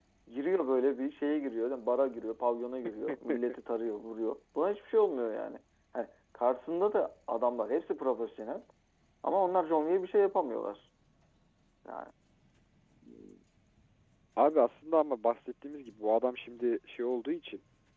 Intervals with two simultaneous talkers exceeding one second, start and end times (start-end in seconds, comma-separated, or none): none